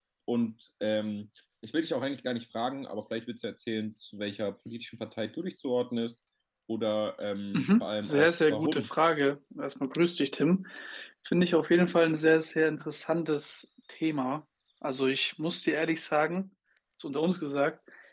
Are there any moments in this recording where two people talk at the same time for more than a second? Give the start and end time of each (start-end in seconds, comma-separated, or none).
7.5-8.9